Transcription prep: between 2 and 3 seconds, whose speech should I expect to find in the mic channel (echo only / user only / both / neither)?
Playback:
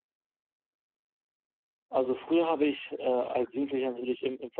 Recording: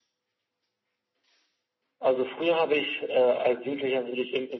echo only